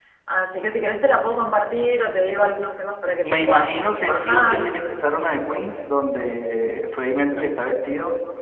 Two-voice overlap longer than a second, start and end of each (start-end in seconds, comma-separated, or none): 3.2-4.7